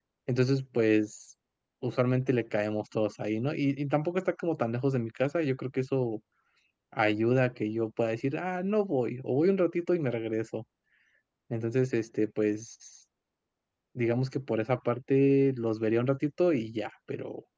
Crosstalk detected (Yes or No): No